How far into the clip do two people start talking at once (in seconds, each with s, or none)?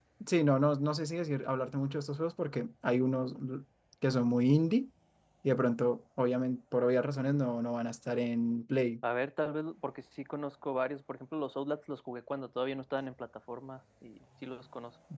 none